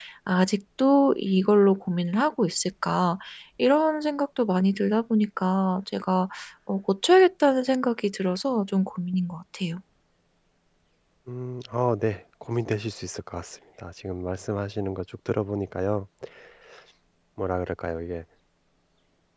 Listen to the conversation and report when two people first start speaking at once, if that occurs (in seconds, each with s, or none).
none